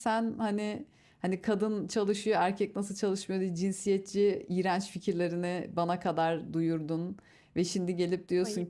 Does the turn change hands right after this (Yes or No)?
No